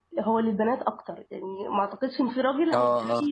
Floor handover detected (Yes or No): No